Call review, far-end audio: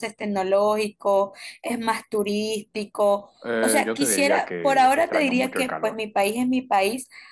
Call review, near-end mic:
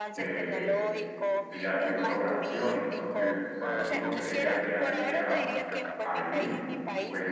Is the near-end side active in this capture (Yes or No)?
Yes